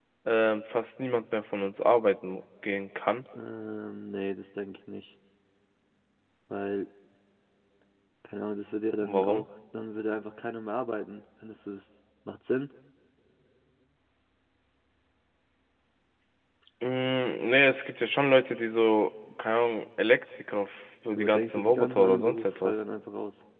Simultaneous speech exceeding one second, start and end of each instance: 21.1-22.8

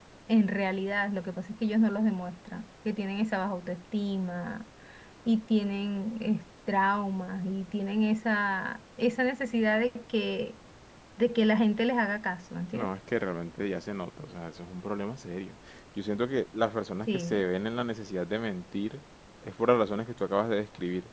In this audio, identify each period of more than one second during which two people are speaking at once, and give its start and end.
none

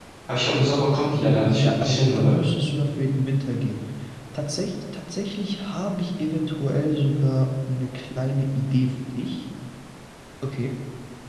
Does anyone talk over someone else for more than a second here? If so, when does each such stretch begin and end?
1.2-2.4

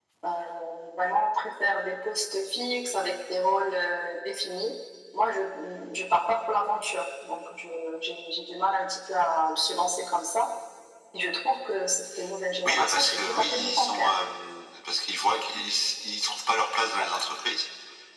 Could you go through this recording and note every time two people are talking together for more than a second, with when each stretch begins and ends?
12.7-14.1

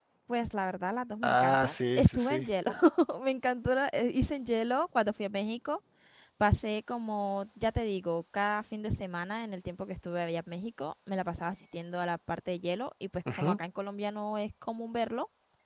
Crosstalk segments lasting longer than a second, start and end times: 1.2-2.5

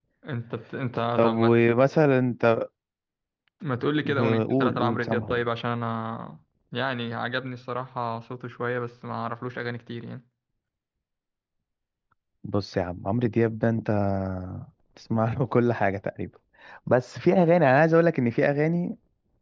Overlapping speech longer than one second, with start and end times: 4.0-5.3

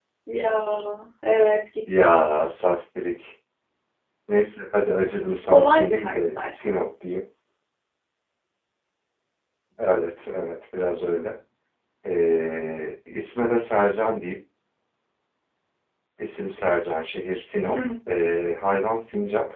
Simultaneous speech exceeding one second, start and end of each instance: 5.5-6.8

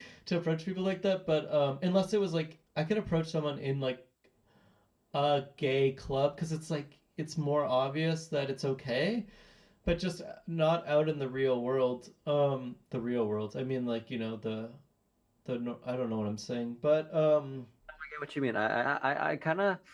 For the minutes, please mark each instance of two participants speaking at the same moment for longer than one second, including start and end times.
none

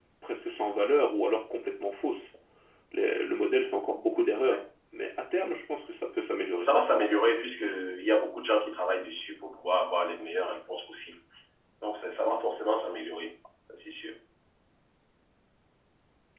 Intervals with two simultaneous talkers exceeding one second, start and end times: none

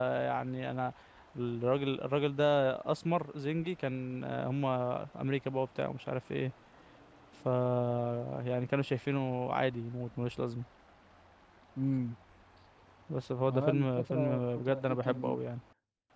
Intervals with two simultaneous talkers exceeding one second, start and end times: 13.5-15.4

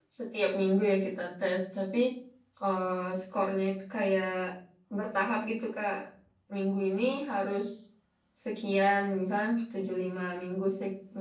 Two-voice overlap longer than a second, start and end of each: none

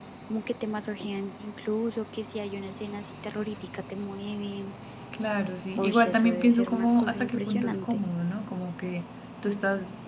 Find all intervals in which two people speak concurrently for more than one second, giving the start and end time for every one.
5.8-8.0

